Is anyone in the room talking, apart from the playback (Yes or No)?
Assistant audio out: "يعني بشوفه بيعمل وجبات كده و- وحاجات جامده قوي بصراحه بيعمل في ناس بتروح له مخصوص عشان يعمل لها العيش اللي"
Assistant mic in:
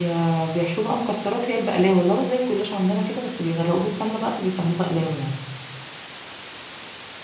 Yes